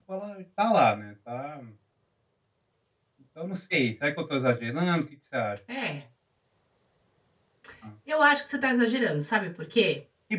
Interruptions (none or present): none